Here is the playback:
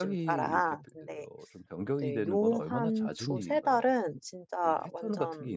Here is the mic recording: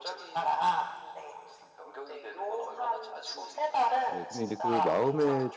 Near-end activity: present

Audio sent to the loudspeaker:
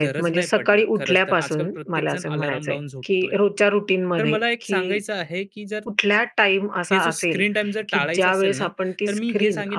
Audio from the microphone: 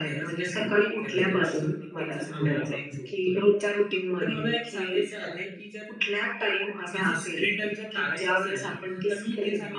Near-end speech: none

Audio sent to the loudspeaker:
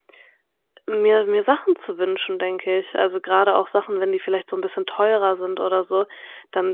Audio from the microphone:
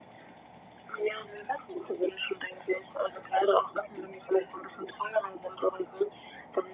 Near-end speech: none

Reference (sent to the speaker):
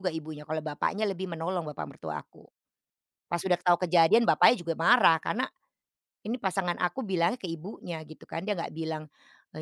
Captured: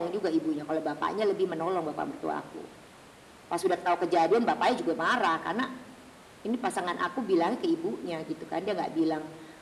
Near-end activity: none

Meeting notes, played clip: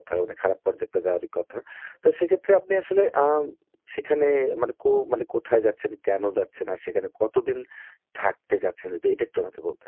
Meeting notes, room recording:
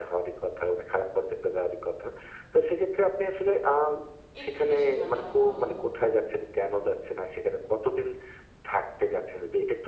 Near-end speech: present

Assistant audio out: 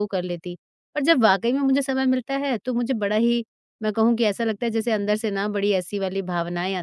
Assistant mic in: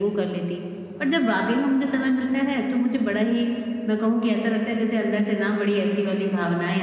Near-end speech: present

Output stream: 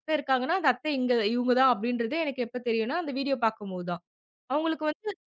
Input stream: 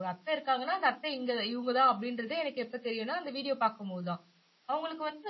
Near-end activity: none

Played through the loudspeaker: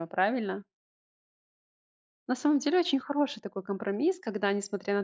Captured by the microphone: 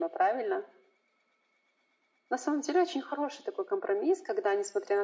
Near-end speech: none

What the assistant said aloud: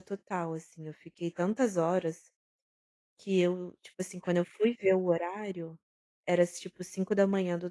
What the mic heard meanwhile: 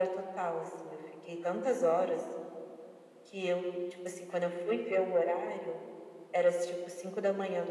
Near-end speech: none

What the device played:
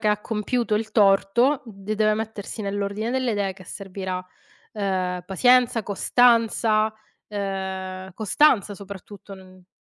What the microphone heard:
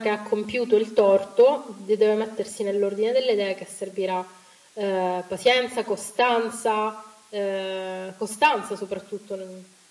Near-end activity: none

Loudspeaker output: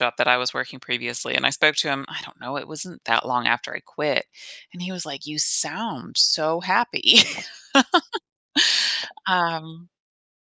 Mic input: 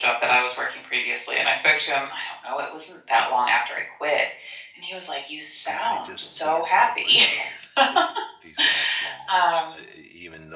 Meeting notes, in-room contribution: present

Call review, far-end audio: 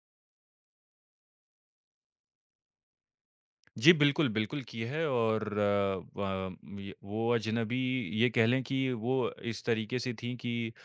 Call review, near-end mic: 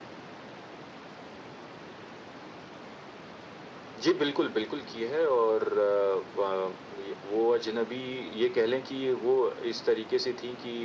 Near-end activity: none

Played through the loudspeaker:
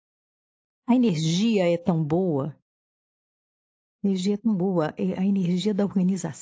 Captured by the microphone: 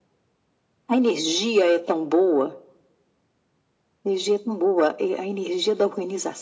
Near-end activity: none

